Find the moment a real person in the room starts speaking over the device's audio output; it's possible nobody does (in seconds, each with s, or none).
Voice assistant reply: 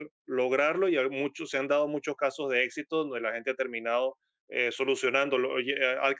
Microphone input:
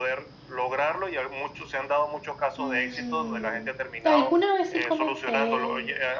2.6 s